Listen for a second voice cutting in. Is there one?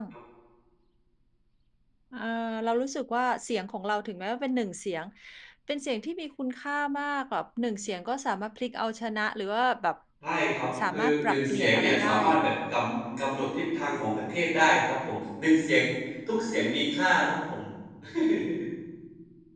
Yes, from 10.9 s

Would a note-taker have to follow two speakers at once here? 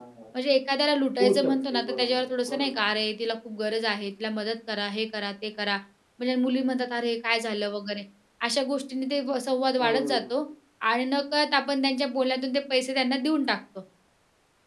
Yes, from 1.2 s

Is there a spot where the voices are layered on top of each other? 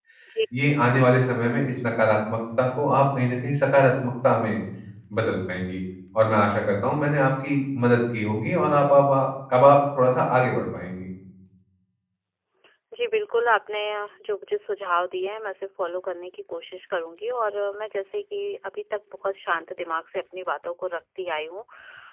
No

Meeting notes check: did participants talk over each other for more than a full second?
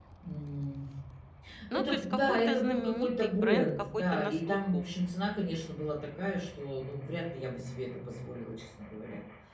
Yes, from 1.7 s

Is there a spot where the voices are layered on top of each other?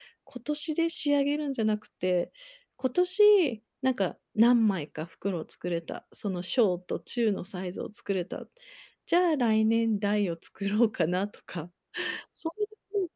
No

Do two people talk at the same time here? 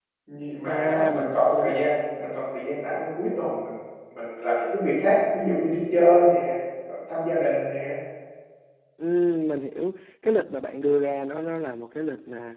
Yes, from 0.6 s

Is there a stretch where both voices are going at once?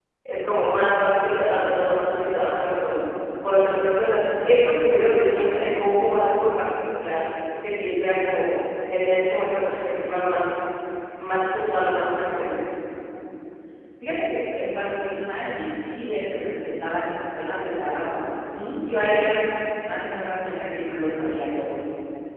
No

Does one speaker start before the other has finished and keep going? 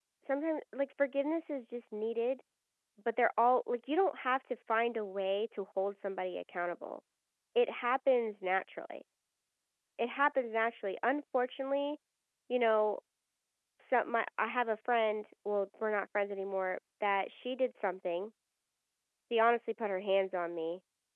No

